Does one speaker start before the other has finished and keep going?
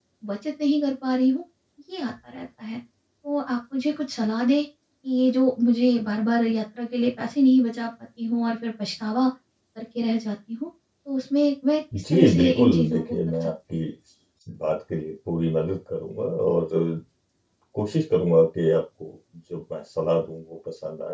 Yes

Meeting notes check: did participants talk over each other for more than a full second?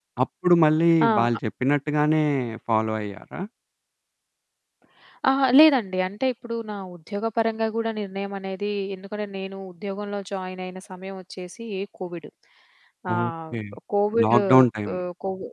No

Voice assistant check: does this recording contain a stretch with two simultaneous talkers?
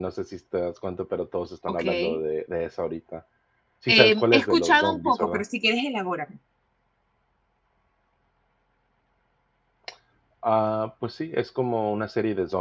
Yes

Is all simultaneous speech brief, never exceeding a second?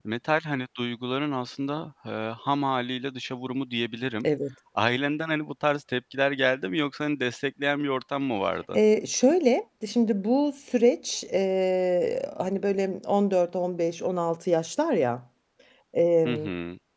Yes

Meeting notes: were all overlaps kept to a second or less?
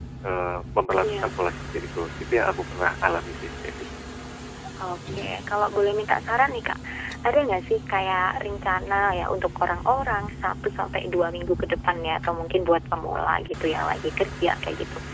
Yes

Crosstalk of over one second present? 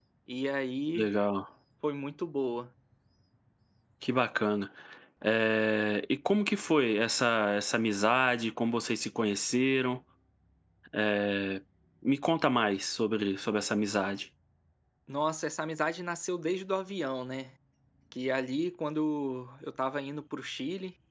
No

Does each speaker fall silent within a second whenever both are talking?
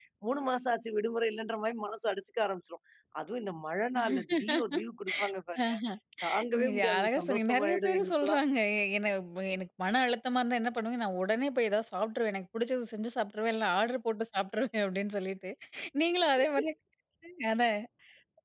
No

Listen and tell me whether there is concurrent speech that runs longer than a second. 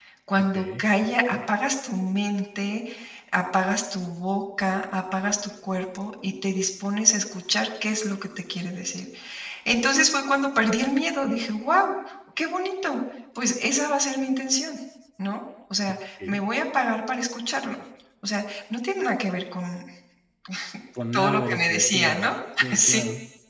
Yes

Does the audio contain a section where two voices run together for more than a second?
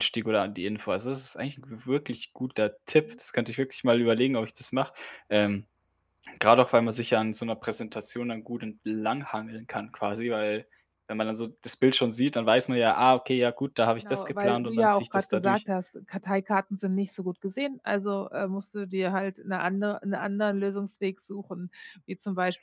Yes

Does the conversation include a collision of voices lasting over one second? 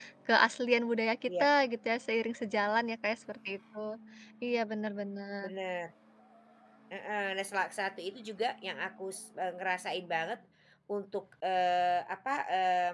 No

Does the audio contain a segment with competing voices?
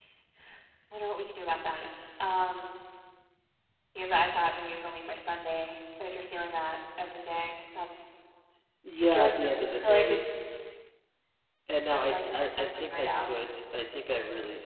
Yes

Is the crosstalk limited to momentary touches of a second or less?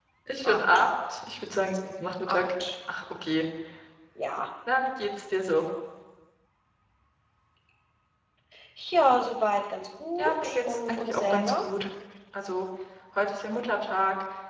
No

